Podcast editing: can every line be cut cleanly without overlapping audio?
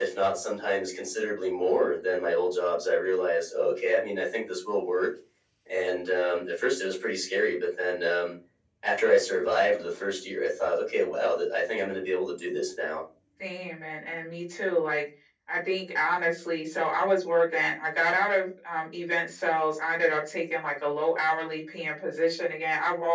Yes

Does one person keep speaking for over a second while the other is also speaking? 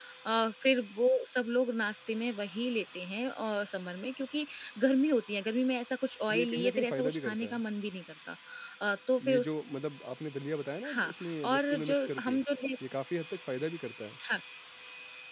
Yes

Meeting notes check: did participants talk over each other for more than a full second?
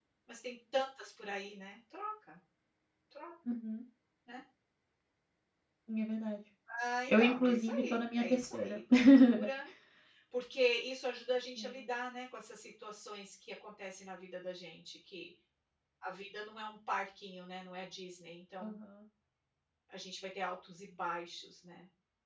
Yes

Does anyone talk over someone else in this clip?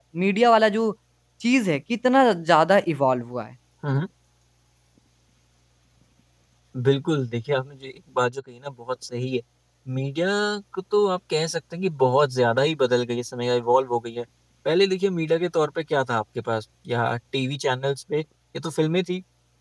No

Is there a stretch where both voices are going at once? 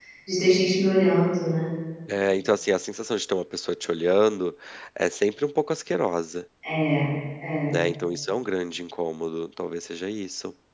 No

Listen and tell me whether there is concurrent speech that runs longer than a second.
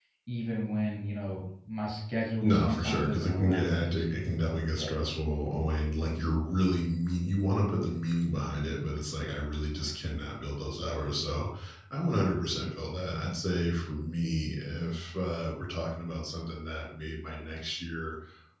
Yes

